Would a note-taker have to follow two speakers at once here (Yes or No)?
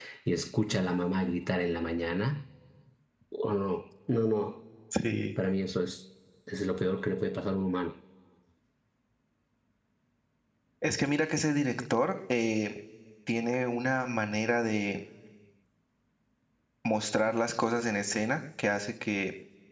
No